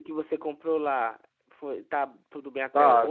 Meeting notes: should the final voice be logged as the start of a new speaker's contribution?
Yes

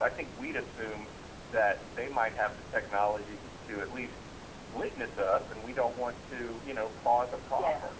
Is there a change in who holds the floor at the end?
No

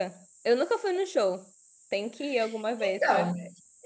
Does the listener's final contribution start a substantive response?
Yes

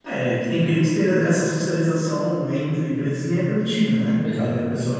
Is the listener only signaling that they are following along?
Yes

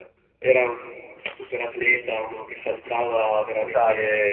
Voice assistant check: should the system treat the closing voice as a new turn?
No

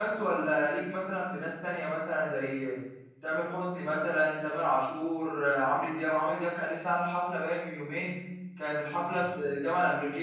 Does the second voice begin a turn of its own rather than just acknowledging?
No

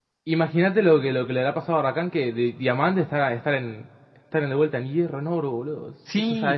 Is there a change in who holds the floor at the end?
Yes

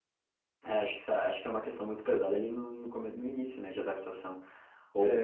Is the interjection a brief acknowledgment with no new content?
Yes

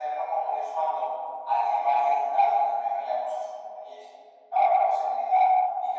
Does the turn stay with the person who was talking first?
Yes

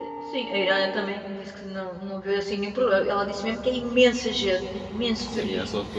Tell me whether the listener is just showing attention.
No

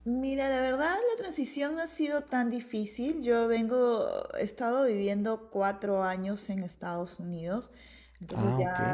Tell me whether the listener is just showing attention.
Yes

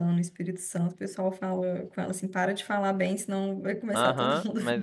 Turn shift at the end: Yes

